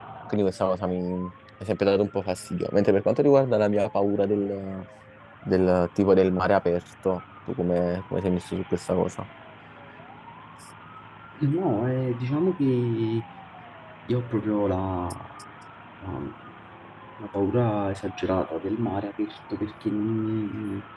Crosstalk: none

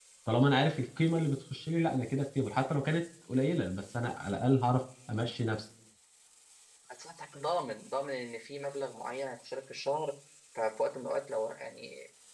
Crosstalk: none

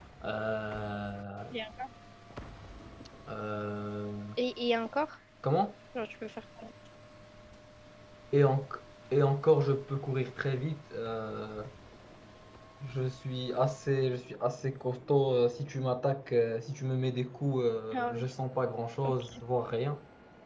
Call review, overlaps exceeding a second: none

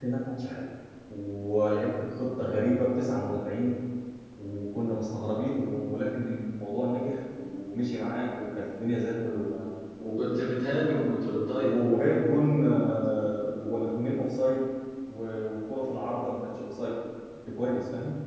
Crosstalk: none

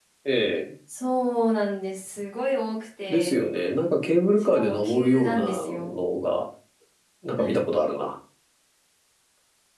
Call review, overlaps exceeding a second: present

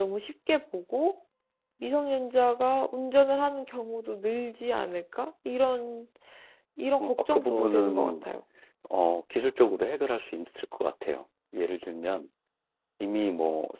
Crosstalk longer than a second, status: present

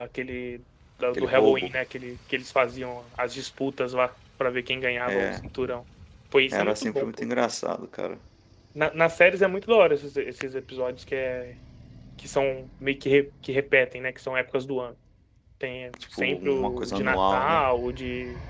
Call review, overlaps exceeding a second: present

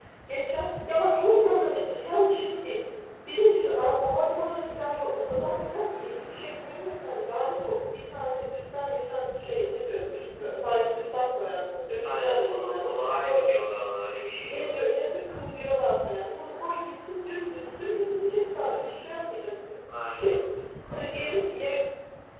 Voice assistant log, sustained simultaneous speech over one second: present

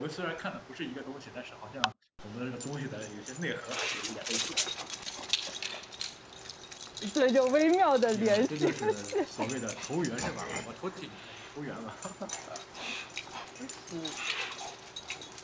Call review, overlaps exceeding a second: present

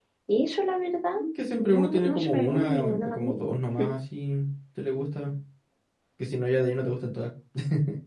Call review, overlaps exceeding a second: present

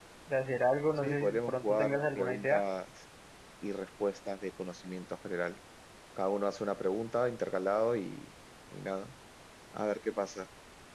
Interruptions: present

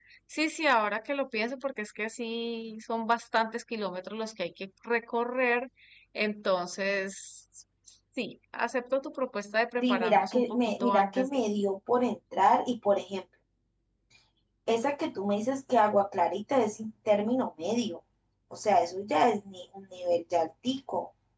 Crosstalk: present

